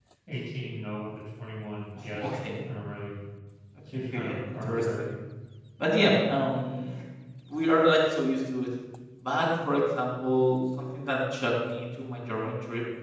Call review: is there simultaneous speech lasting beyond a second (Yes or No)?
Yes